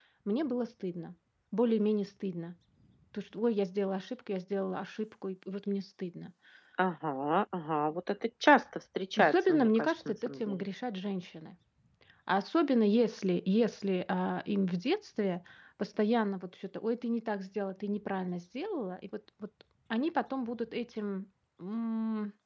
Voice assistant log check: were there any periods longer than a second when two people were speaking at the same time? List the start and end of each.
9.2-10.6

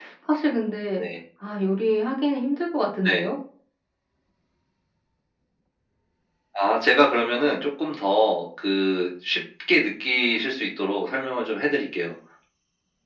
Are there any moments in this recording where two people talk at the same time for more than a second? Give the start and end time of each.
none

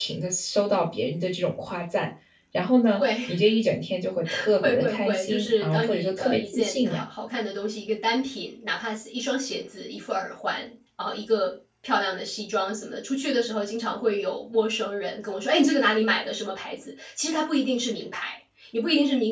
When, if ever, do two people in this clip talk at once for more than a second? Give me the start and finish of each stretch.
4.6-7.0

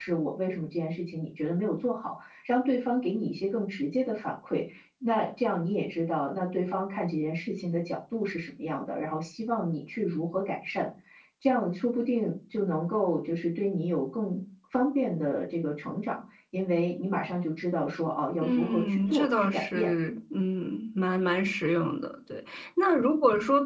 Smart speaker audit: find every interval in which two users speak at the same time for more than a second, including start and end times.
18.4-19.9

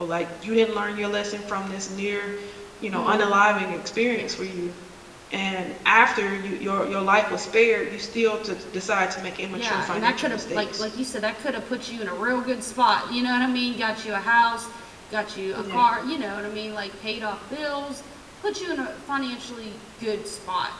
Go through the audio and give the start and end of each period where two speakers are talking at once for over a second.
9.5-10.8

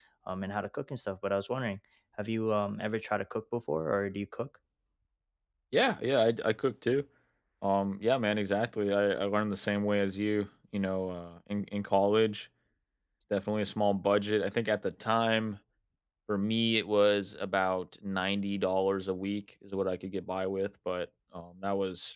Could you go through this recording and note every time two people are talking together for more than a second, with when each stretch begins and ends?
none

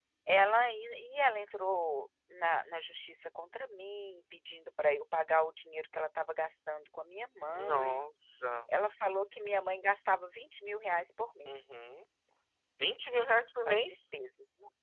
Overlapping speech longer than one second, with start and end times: none

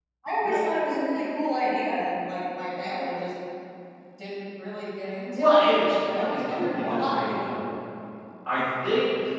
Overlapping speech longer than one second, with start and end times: 6.1-7.5

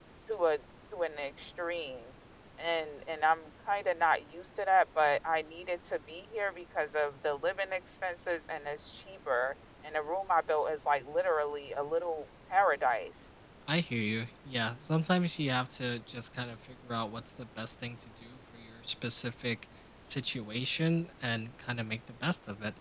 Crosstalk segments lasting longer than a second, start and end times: none

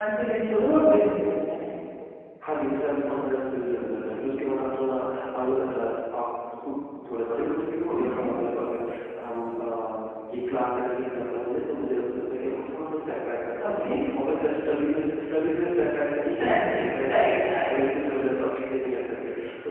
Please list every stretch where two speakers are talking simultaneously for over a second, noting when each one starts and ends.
16.4-17.7

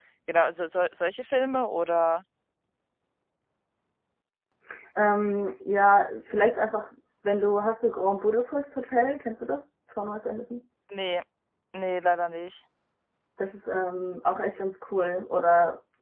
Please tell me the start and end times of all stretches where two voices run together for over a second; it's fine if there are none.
none

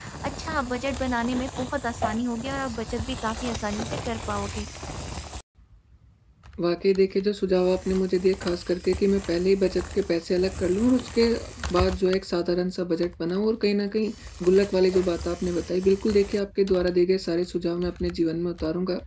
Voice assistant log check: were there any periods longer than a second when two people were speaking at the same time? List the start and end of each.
none

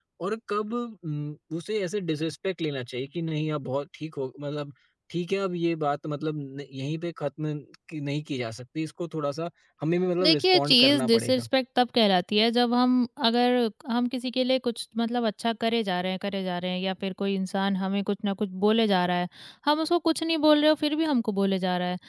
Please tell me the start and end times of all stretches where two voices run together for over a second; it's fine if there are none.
10.2-11.5

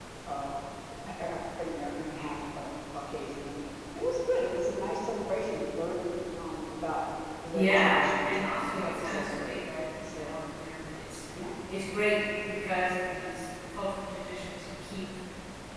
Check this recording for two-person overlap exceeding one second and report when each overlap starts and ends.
7.5-9.6

